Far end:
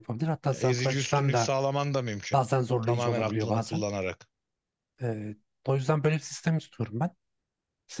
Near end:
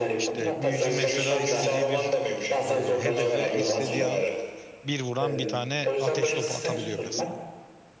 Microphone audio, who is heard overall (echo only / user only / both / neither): both